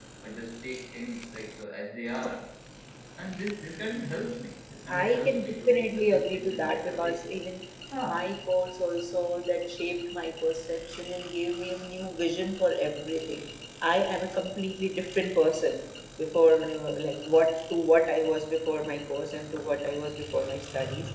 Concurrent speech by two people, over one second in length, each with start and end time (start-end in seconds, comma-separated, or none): 4.9-7.2